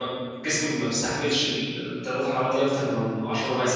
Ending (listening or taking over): taking over